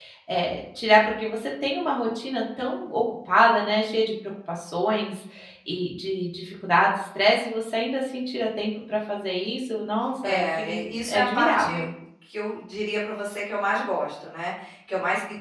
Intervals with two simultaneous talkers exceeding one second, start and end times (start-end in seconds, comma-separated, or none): 10.2-11.9